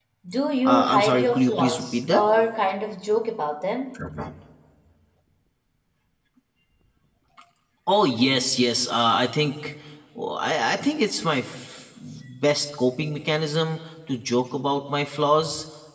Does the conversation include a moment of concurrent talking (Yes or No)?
Yes